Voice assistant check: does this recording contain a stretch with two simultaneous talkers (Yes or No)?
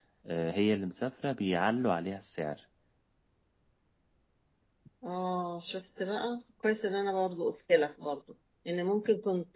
No